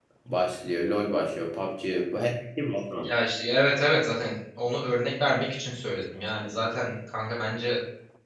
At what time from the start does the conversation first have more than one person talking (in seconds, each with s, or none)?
none